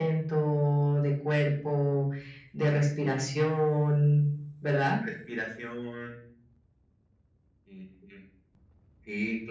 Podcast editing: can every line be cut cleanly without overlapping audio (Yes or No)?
Yes